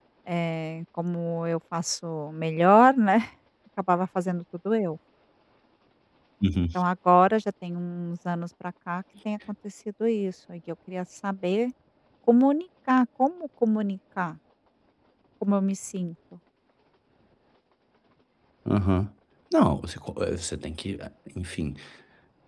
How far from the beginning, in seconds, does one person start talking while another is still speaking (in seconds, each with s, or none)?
none